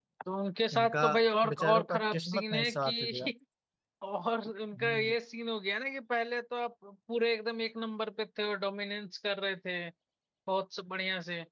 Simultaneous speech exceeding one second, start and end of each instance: 1.5-3.3

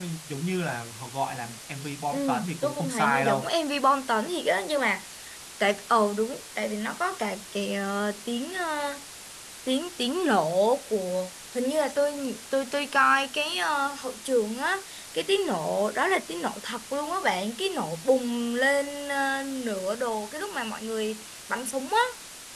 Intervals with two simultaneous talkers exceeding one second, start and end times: 2.1-3.5

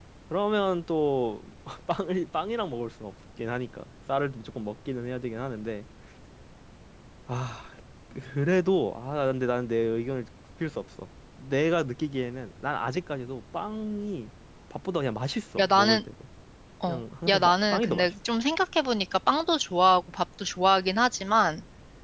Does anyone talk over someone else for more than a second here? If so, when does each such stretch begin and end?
16.9-18.1

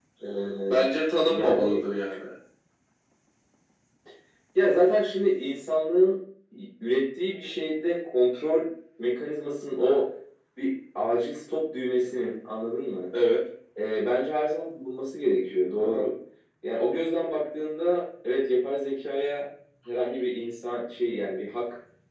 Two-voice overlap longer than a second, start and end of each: none

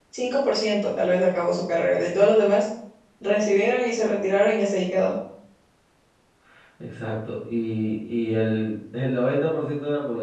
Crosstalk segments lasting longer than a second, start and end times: none

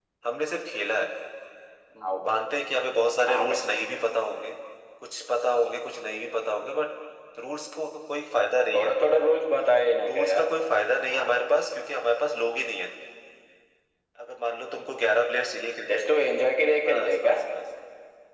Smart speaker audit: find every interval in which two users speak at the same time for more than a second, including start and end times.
none

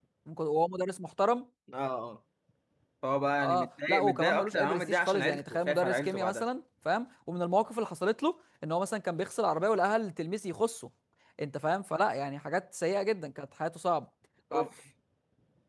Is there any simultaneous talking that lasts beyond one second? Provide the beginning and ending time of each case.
3.4-6.4

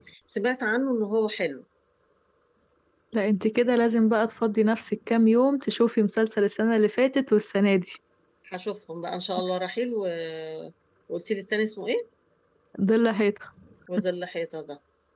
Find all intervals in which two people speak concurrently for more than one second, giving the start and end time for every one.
none

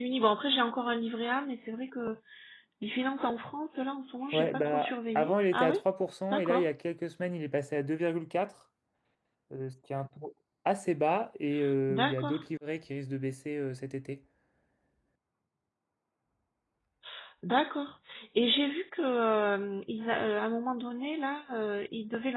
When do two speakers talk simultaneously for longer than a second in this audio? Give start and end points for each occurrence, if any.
4.3-5.8

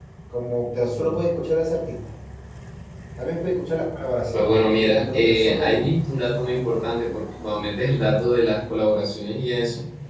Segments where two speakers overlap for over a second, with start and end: 4.3-5.9

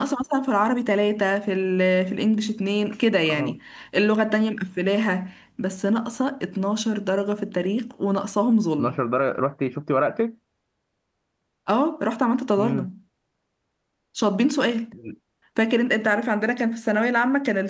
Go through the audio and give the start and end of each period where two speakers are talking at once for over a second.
none

